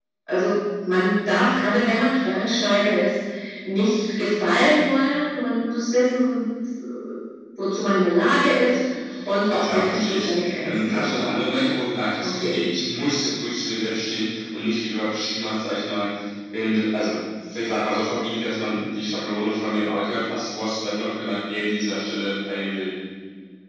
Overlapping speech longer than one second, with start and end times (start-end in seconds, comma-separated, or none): 9.5-11.1